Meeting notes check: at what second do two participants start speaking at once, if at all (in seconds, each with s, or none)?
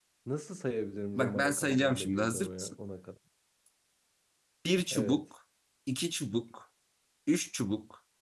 1.2 s